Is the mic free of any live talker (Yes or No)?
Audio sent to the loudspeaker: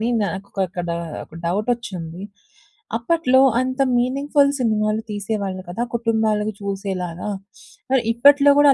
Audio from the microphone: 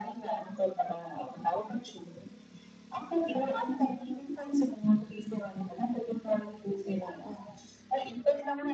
Yes